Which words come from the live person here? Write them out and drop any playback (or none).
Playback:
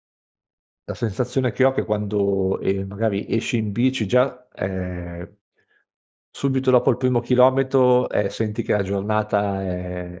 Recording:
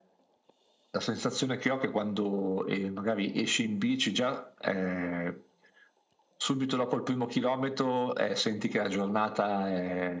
none